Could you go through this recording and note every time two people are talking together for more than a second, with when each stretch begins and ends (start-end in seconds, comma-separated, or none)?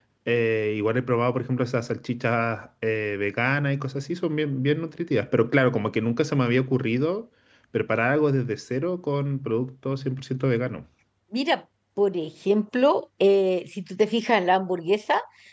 none